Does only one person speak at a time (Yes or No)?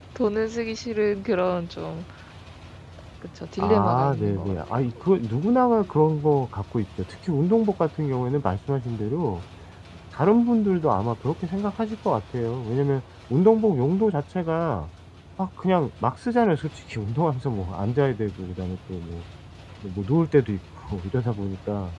No